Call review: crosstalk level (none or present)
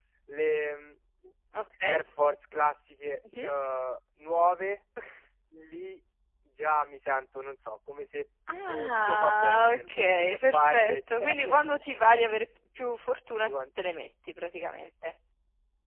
present